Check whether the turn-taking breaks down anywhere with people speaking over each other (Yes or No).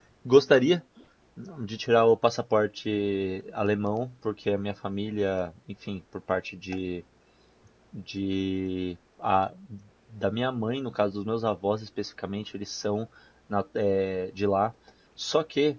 No